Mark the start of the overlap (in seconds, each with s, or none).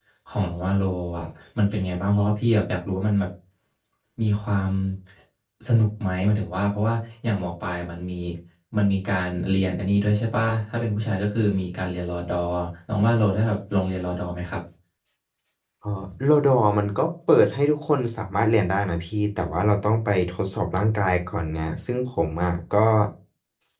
none